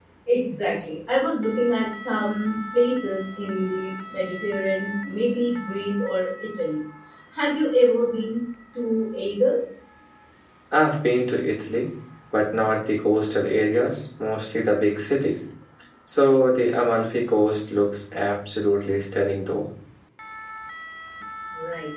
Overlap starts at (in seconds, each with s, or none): none